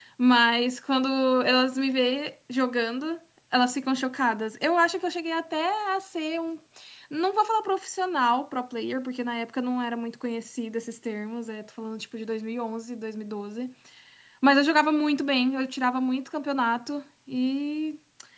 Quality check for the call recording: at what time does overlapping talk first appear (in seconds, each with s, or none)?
none